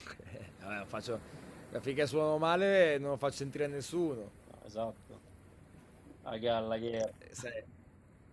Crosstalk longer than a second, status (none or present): none